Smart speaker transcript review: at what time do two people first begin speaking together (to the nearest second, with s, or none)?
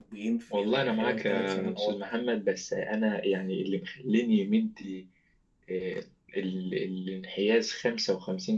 1 s